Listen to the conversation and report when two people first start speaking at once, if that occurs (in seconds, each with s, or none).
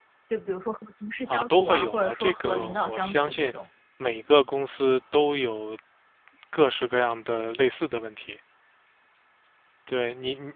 1.3 s